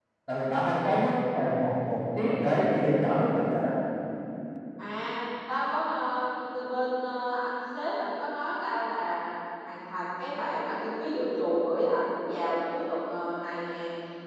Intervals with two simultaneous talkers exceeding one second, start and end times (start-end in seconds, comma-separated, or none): none